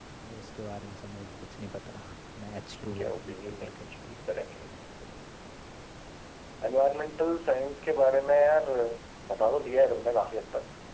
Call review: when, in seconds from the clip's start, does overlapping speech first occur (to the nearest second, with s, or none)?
3 s